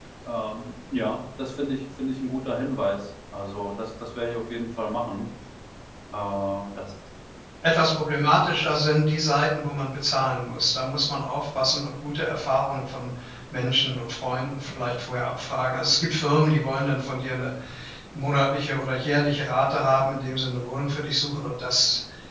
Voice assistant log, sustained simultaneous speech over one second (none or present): none